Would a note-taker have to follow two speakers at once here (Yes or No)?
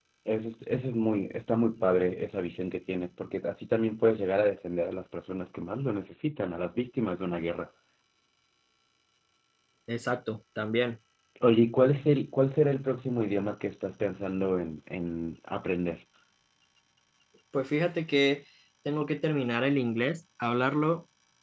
No